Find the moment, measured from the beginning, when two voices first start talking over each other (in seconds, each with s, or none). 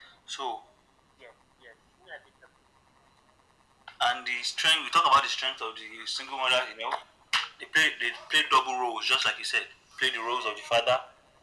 none